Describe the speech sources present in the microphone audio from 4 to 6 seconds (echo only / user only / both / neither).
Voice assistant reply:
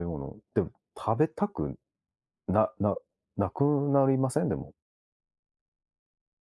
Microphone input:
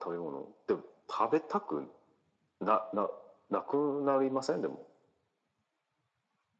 echo only